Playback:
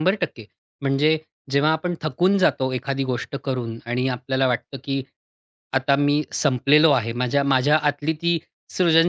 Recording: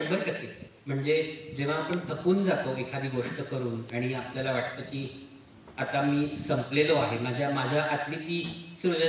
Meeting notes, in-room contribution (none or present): none